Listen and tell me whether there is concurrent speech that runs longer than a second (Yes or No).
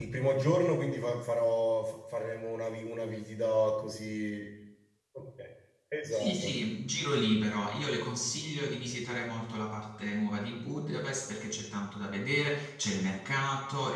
No